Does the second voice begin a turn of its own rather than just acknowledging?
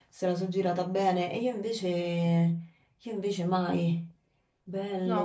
Yes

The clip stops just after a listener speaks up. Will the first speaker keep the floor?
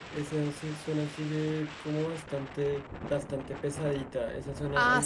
No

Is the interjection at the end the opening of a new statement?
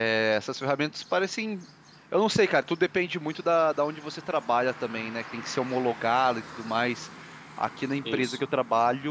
No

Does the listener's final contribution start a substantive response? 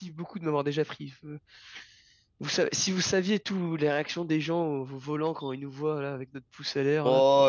Yes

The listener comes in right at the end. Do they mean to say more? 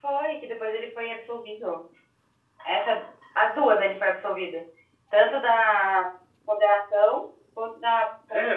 Yes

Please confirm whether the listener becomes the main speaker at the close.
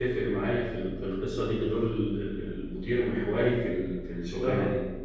Yes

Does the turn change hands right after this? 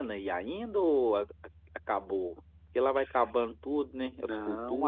Yes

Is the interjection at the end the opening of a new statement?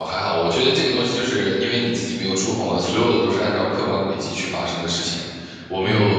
No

